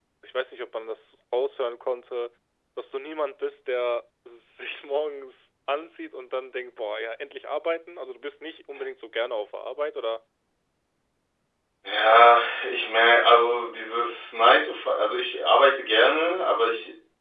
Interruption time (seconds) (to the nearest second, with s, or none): none